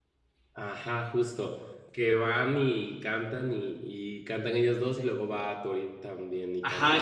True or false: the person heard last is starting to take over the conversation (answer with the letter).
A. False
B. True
B